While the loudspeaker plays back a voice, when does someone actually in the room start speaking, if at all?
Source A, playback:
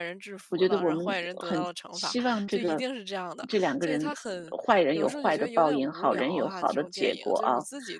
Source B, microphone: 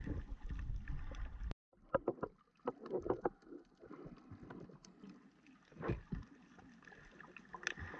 none

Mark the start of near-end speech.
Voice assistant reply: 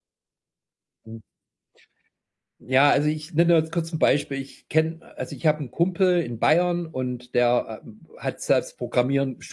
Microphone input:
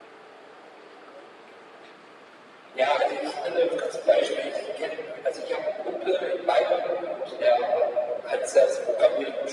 none

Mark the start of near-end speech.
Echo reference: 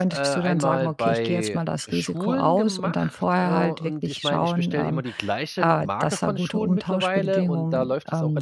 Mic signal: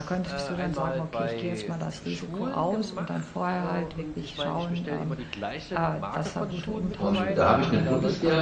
6.9 s

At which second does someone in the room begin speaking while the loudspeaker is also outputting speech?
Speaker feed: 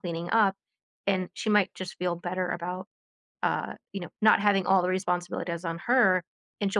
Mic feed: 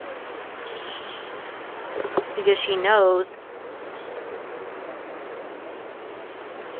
2.3 s

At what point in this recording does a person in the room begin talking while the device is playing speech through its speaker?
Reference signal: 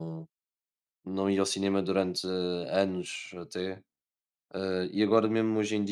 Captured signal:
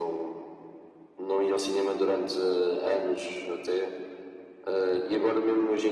none

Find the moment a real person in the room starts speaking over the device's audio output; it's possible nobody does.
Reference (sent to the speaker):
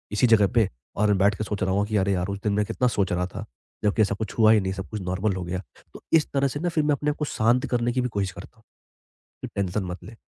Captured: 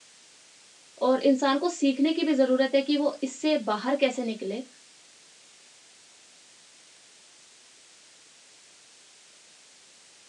1.0 s

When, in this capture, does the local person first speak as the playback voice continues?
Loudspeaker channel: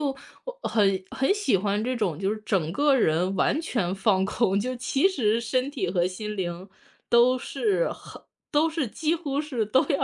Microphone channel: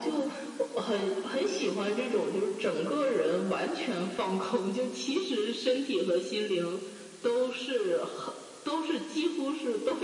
none

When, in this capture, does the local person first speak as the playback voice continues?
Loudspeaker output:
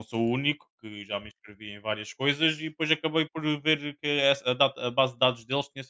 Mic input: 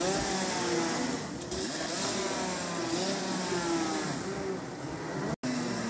none

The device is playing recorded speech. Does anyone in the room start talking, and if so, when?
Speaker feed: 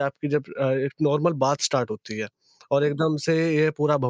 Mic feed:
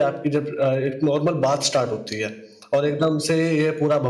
none

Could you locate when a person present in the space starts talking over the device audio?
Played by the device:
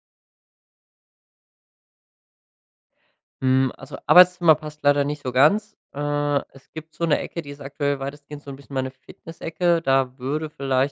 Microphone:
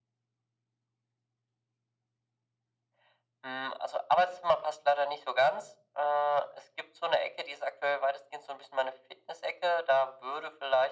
none

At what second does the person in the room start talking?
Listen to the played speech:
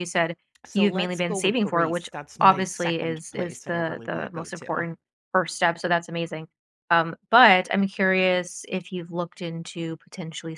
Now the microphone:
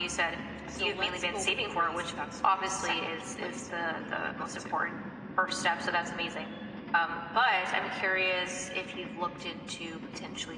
none

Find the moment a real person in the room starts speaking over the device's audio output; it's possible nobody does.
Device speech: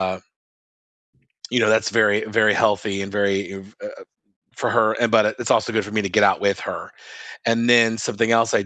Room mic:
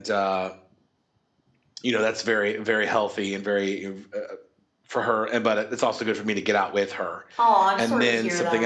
7.3 s

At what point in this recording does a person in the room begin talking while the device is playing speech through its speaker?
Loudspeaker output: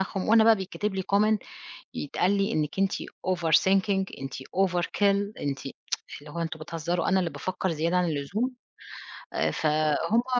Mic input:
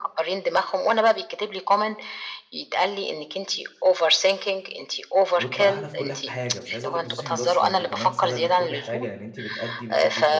5.4 s

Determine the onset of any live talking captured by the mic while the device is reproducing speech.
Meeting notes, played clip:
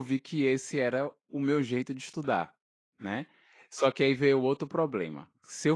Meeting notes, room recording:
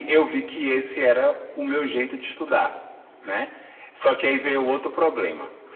none

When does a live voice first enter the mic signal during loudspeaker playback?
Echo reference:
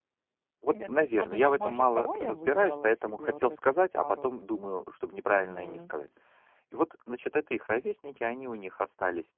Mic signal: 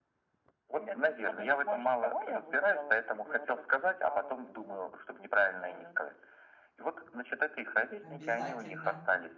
8.0 s

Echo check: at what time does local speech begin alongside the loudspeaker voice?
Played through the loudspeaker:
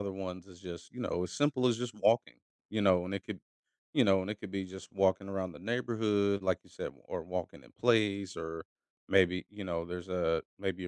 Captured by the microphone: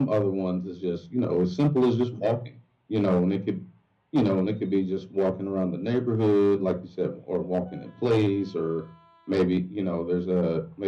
none

